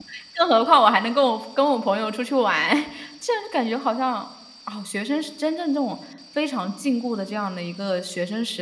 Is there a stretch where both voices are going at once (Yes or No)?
No